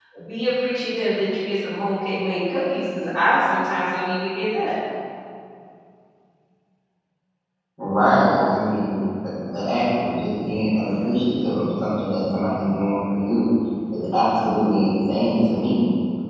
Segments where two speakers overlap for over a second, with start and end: none

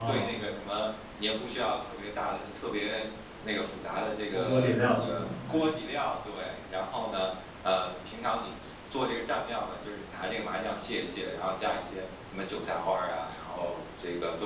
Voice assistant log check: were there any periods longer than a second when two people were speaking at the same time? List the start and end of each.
4.3-5.7

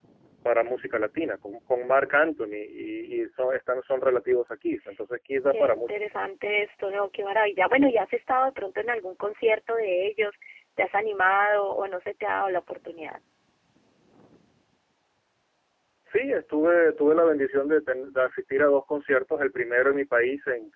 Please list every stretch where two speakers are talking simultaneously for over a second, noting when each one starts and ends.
none

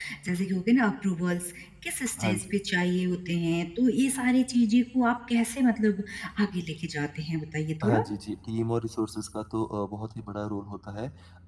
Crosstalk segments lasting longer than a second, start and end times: none

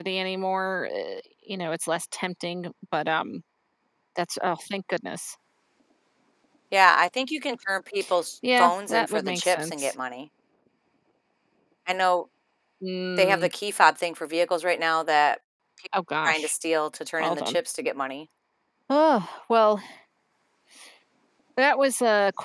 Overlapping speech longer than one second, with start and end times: 8.6-9.9

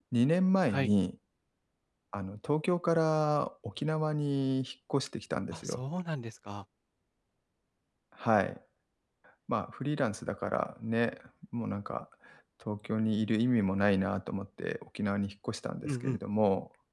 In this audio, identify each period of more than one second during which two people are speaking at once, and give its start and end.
none

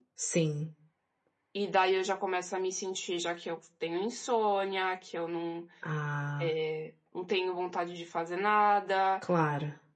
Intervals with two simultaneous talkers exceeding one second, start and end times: none

